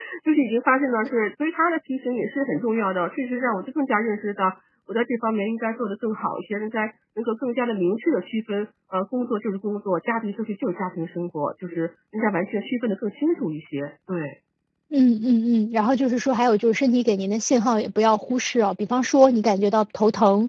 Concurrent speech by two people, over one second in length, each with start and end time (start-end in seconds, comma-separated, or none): none